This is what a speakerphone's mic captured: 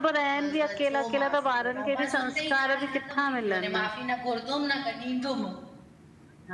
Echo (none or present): present